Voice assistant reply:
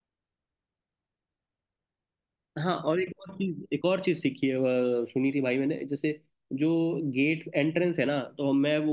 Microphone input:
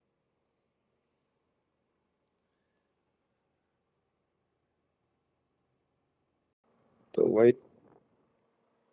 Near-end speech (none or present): present